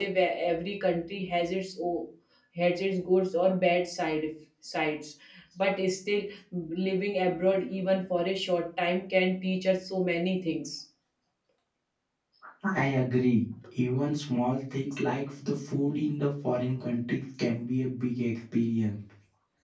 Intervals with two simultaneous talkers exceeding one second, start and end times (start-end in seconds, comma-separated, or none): none